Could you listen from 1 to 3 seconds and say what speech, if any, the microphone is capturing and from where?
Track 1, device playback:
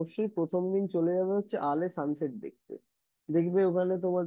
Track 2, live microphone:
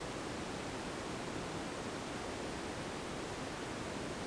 neither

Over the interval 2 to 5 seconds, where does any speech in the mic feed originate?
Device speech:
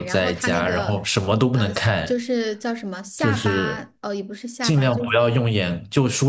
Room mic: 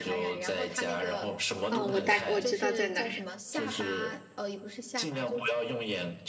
both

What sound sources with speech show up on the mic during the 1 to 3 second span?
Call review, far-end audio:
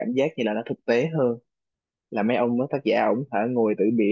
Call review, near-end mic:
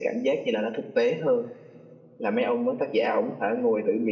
echo only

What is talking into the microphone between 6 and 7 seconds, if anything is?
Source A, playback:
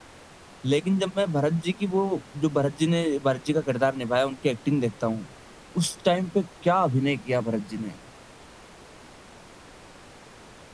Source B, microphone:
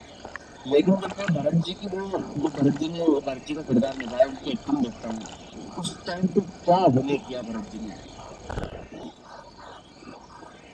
echo only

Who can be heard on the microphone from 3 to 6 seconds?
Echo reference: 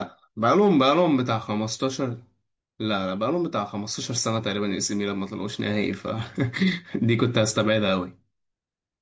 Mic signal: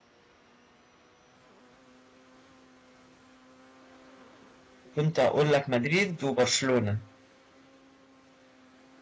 user only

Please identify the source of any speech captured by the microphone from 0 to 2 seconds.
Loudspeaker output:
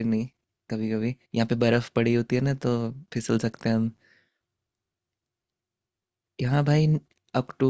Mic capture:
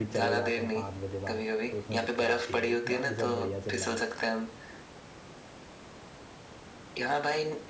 both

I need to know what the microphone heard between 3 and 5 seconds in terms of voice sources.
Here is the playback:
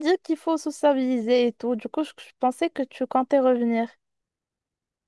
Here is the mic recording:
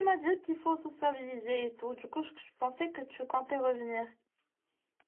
echo only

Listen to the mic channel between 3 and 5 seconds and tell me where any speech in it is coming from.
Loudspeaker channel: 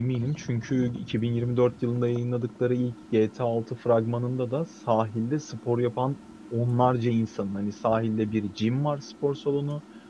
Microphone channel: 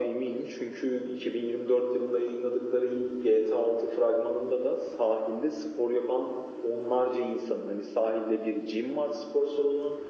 echo only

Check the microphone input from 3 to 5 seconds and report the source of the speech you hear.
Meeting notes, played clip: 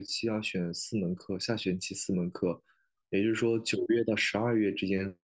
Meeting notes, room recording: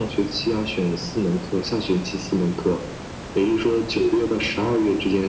echo only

